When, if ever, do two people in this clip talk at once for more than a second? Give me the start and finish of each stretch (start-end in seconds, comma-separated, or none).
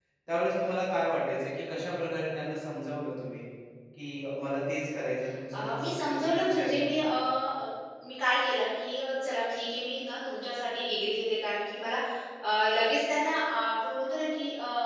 5.6-6.9